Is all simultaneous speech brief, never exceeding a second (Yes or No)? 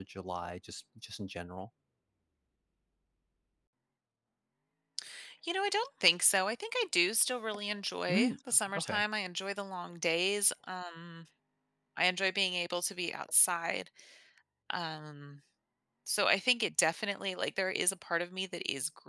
Yes